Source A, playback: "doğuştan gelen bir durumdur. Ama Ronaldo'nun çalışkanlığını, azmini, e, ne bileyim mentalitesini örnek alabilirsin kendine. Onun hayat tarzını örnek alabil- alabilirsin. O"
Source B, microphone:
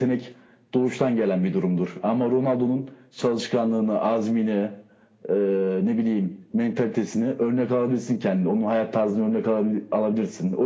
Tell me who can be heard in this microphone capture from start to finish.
echo only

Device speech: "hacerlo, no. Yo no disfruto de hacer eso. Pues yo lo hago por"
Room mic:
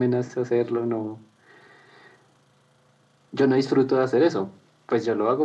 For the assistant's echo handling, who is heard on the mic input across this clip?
echo only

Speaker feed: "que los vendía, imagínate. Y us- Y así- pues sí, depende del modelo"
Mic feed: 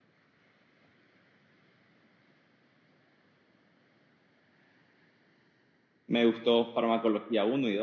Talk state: user only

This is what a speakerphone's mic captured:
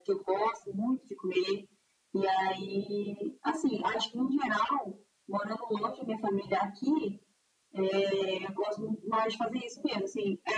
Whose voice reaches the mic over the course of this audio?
echo only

